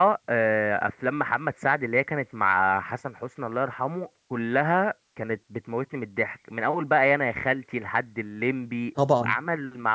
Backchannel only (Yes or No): Yes